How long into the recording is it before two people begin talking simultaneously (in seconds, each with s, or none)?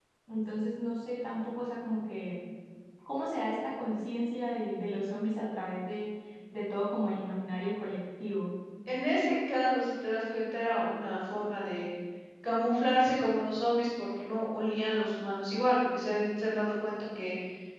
none